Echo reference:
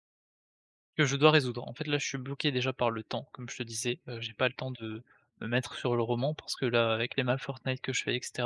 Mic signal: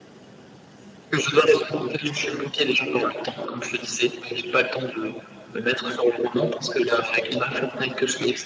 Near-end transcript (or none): none